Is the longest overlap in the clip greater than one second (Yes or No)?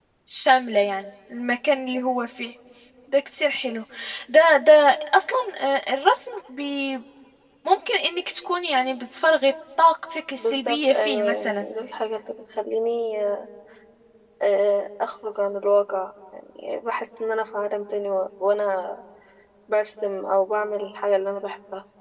Yes